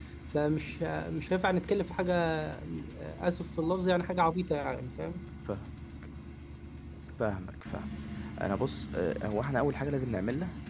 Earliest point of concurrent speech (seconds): none

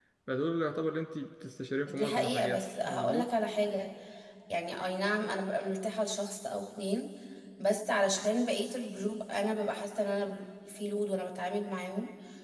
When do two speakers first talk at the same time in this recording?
1.9 s

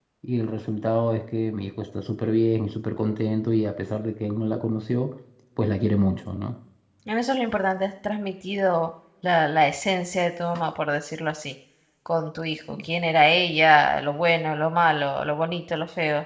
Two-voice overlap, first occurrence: none

